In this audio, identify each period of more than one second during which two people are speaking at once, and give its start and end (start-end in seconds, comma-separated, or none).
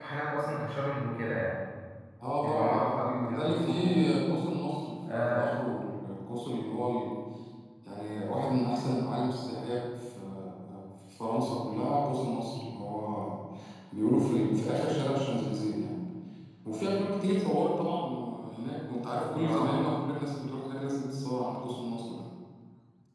2.4-4.0